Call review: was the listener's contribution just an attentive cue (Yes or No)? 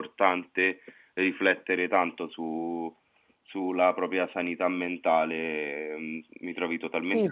No